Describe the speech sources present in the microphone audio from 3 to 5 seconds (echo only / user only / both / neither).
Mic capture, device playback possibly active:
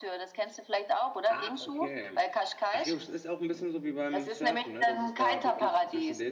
both